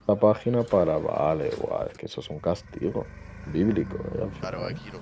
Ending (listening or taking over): taking over